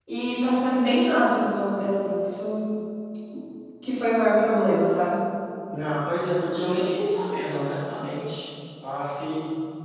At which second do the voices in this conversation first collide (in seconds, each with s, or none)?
none